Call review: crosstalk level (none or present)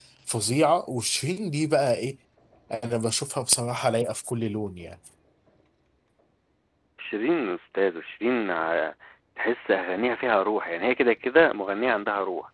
none